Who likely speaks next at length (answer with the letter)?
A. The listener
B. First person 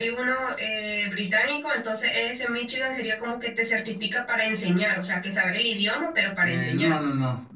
A